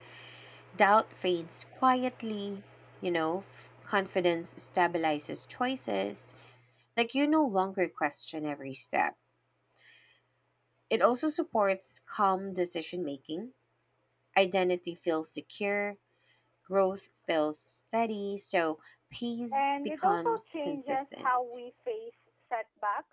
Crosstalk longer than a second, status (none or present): present